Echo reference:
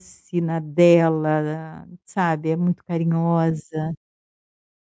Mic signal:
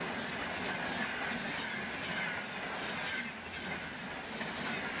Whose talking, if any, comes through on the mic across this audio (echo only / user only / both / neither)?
neither